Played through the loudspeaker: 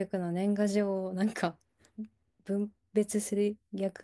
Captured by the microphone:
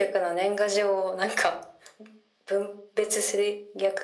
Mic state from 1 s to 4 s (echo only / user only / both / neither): echo only